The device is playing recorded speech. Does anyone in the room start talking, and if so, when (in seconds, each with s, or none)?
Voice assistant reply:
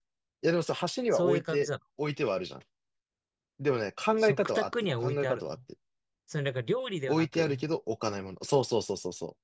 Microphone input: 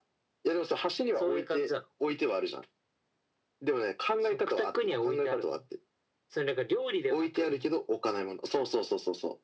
none